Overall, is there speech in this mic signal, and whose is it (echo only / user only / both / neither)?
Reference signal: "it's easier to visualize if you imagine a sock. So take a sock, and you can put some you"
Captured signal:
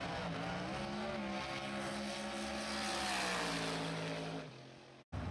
neither